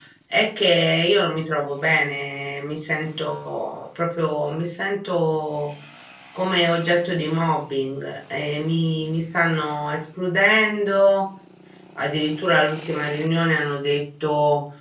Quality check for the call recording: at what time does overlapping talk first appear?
none

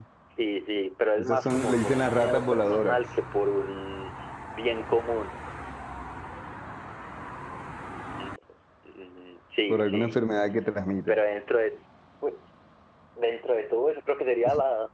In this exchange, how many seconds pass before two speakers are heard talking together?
1 s

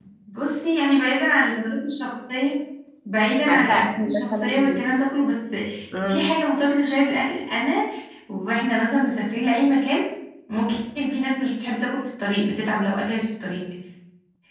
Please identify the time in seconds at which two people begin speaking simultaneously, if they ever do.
3 s

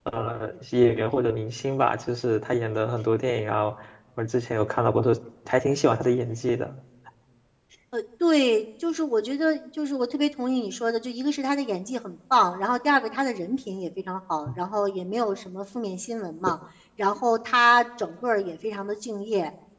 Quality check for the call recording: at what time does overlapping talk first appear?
none

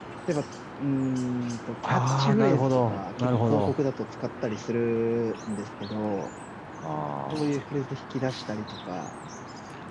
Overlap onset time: 2 s

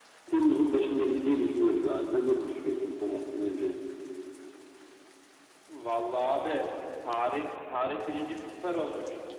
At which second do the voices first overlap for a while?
none

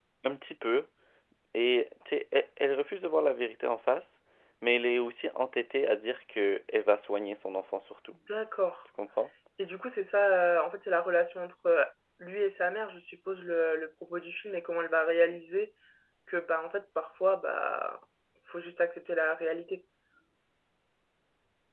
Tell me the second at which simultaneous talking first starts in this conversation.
none

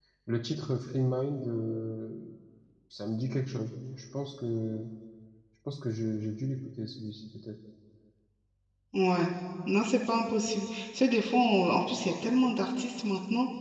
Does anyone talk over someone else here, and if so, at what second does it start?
none

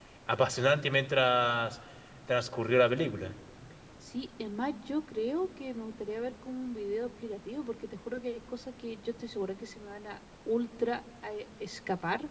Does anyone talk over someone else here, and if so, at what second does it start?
none

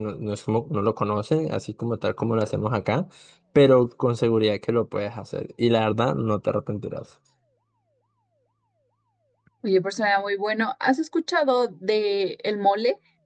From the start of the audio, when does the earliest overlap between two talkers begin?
none

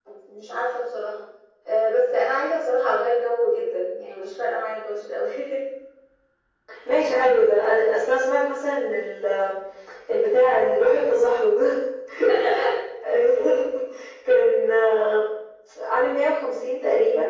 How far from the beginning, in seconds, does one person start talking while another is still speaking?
none

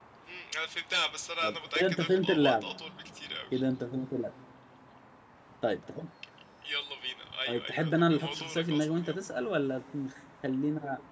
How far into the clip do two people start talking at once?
1 s

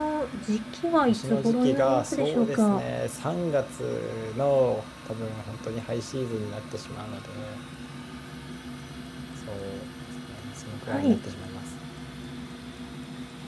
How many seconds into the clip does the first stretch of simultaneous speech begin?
1 s

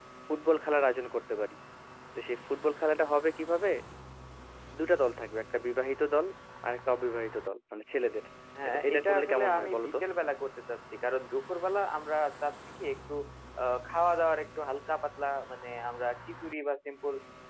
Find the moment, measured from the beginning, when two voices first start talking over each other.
9 s

